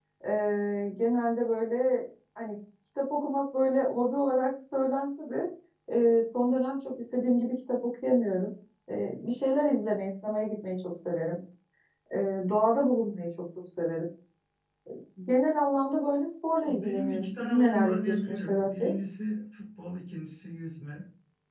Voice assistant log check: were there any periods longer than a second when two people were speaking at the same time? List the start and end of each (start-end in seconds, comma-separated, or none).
16.7-18.9